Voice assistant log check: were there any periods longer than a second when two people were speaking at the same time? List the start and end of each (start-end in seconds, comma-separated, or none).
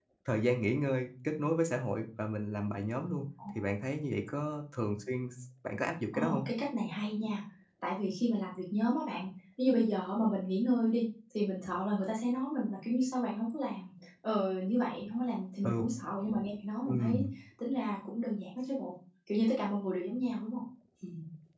none